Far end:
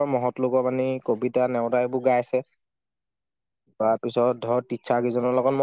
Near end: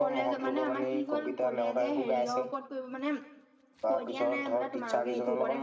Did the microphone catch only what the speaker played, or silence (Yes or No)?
No